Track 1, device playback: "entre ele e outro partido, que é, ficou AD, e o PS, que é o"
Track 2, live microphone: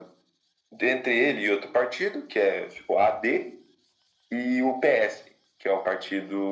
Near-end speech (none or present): none